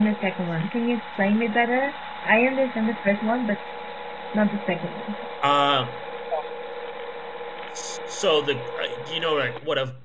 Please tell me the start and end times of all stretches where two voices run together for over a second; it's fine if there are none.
none

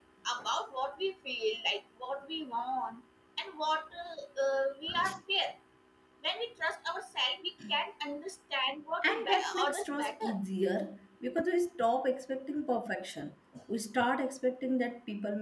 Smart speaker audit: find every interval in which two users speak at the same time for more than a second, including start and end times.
9.0-10.4

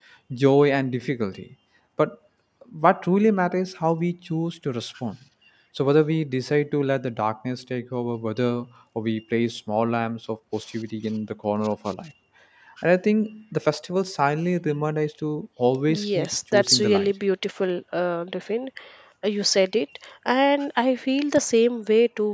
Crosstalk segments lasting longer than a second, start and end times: 15.9-17.1

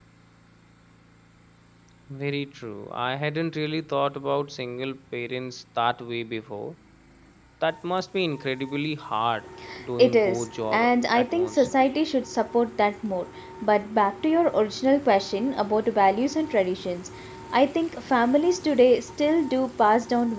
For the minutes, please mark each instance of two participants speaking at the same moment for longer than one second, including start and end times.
10.0-11.7

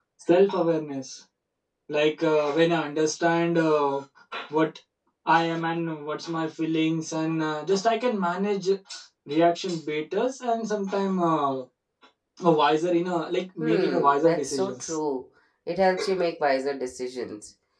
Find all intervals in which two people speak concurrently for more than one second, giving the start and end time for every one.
13.6-14.9

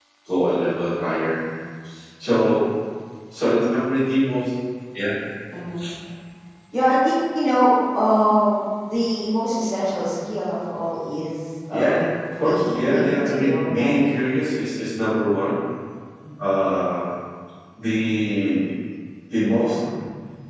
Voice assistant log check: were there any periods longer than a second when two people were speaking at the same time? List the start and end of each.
12.4-14.0

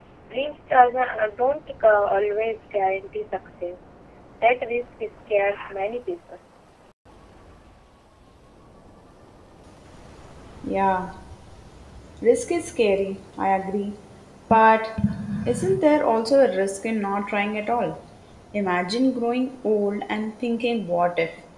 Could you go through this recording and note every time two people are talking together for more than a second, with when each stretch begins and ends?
none

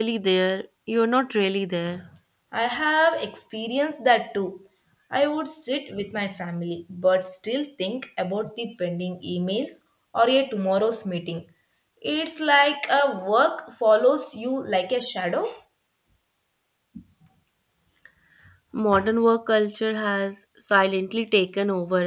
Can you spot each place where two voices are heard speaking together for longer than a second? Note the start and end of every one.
none

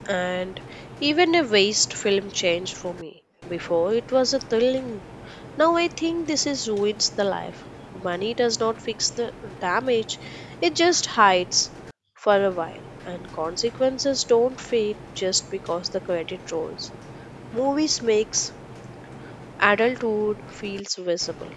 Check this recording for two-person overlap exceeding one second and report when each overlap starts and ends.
none

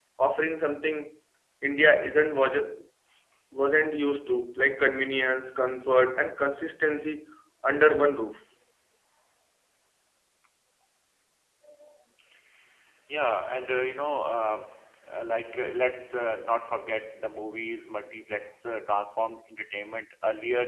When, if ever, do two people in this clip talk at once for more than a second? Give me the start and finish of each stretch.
none

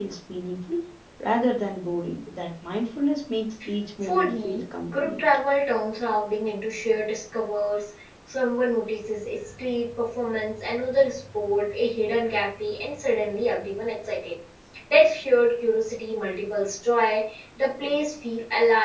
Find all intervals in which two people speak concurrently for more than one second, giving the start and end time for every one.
4.0-5.2

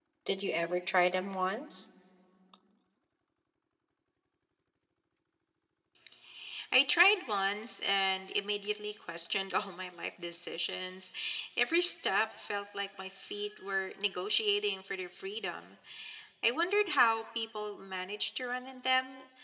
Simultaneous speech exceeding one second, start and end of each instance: none

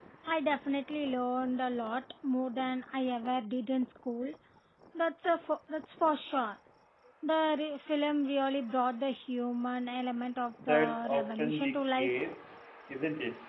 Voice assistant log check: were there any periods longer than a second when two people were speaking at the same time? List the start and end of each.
10.7-12.1

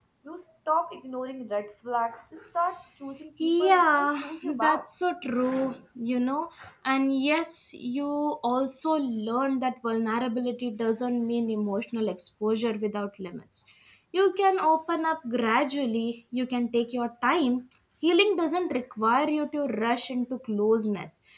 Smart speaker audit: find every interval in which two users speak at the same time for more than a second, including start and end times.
3.4-4.9

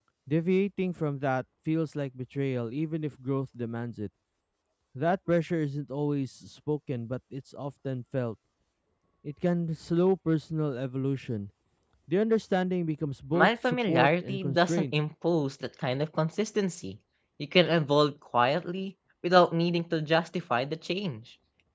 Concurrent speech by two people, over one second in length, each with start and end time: 13.3-14.8

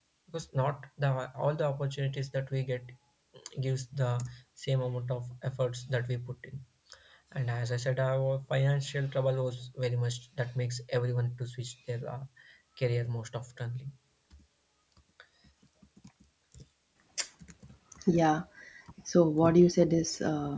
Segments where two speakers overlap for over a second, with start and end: none

